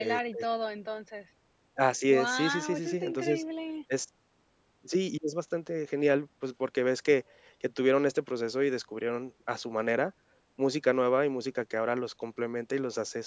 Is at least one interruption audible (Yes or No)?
Yes